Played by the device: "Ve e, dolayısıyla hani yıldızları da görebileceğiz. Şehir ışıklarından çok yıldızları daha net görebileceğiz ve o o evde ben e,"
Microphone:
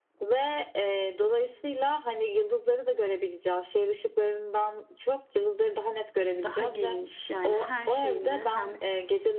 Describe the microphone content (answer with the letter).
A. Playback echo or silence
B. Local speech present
B